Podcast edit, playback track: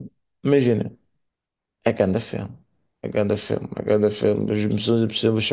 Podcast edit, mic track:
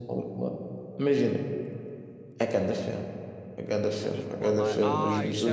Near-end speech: present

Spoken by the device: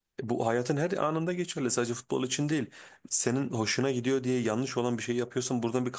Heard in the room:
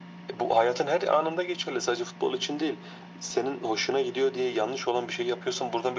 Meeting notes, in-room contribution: none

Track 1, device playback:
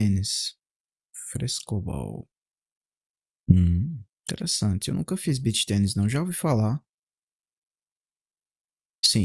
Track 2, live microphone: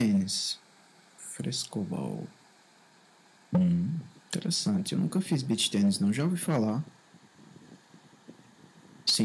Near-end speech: none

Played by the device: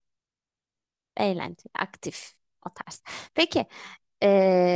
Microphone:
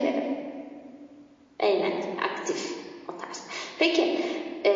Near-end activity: none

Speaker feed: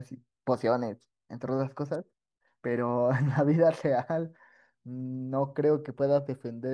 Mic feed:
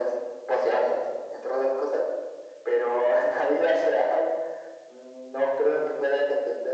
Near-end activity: none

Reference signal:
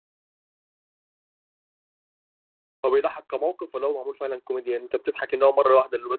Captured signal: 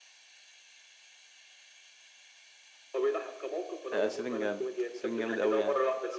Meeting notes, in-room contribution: present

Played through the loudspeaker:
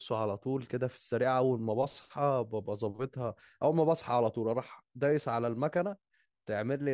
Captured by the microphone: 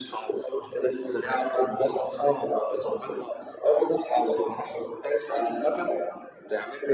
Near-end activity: none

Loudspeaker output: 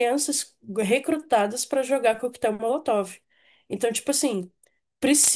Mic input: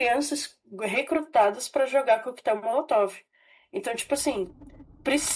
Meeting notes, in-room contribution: none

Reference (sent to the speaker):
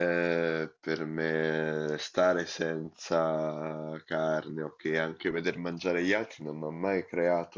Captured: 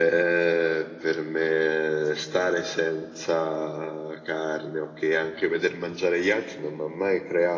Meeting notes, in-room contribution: none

